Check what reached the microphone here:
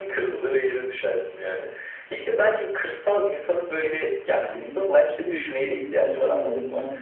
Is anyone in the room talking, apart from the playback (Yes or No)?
Yes